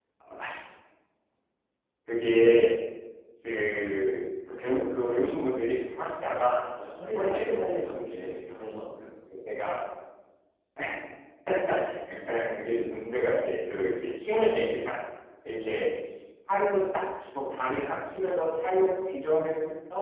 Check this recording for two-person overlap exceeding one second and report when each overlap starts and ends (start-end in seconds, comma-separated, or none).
7.2-8.6